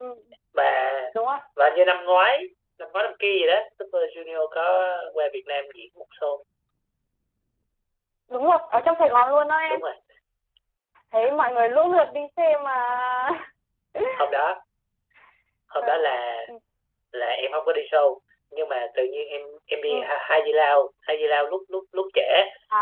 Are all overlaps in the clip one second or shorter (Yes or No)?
Yes